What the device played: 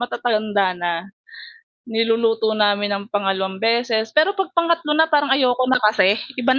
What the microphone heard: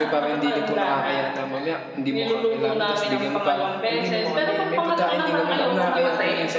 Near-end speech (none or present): present